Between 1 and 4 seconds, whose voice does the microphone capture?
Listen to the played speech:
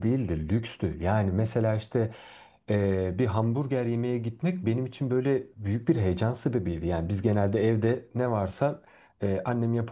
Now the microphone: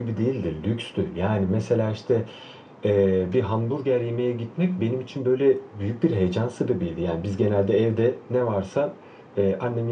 echo only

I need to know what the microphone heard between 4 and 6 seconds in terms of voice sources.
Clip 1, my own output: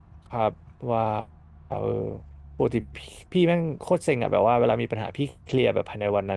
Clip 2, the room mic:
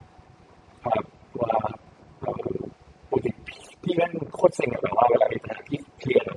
echo only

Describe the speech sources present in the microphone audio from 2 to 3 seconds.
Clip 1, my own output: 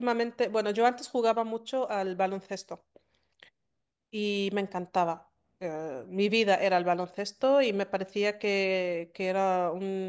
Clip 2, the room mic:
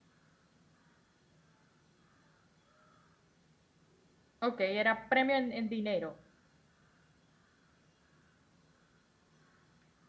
neither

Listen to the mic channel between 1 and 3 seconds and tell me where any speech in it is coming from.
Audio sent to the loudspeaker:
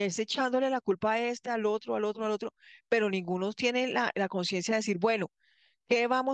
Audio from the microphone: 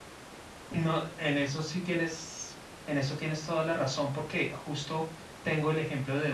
user only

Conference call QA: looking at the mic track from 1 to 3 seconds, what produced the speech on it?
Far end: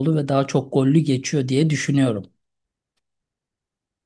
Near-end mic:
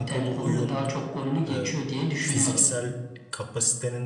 both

